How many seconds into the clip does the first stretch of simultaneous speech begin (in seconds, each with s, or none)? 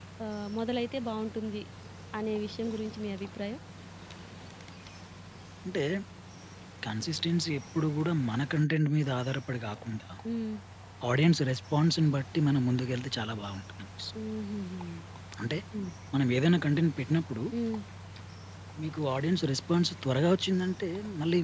none